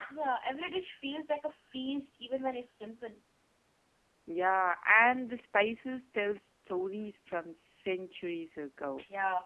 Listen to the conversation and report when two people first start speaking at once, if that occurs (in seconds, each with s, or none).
none